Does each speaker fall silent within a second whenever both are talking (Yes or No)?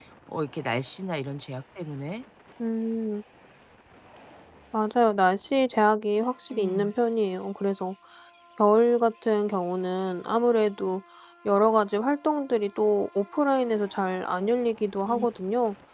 Yes